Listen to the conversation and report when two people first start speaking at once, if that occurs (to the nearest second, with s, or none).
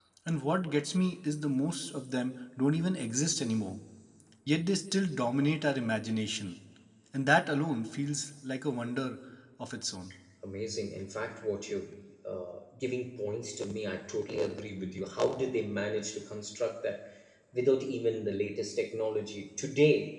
none